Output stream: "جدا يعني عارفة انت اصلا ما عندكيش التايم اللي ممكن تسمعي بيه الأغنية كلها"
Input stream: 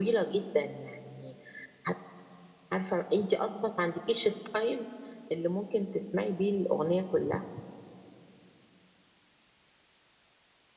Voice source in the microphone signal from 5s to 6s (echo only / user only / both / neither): echo only